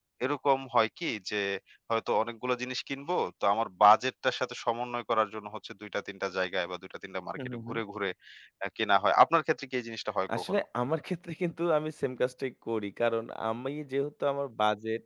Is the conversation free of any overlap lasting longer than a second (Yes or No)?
Yes